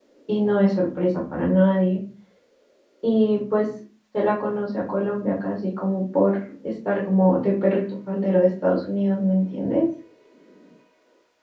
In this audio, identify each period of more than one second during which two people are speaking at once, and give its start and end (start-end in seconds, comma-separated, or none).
none